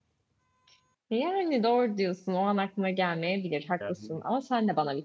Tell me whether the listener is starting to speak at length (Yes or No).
No